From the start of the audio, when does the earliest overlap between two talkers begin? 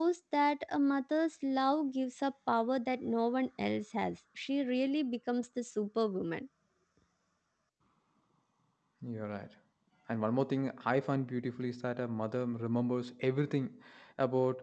none

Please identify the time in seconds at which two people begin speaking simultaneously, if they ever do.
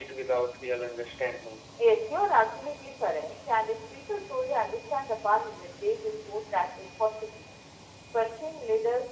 none

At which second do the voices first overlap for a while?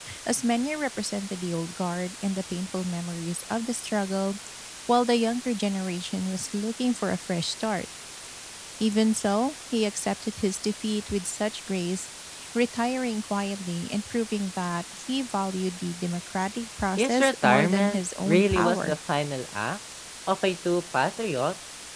17.0 s

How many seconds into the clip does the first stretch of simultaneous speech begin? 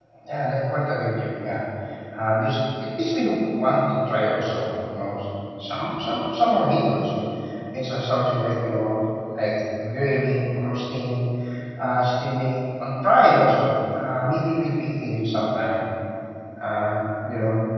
none

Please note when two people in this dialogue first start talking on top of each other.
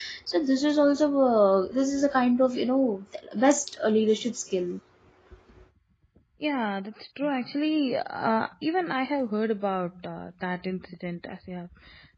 none

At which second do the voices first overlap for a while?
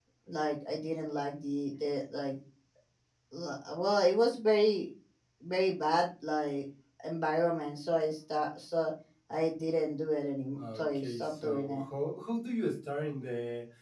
10.6 s

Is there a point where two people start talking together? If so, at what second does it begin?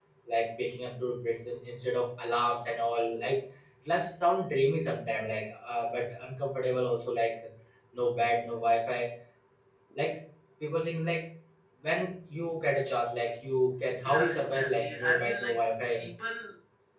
14.0 s

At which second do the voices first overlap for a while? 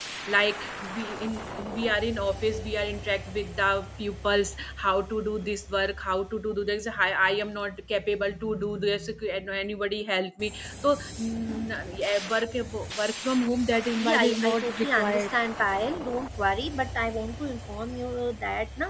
14.0 s

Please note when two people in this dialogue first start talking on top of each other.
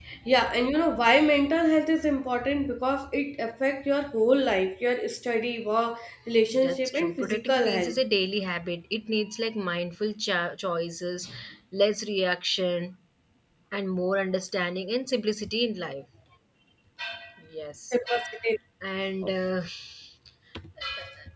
6.5 s

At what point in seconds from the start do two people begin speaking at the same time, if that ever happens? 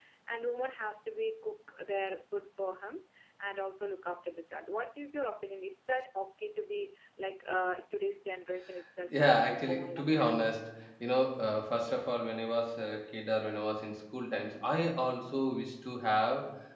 9.1 s

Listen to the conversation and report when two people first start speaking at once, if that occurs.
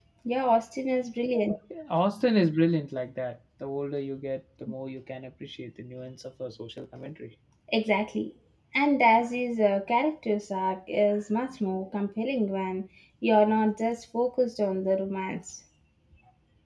none

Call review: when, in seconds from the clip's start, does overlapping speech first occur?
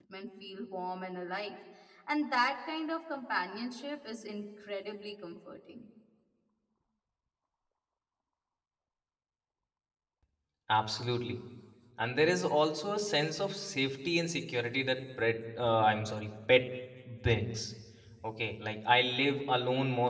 none

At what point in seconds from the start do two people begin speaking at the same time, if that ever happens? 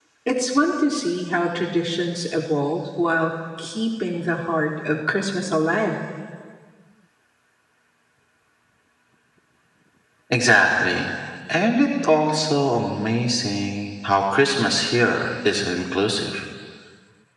none

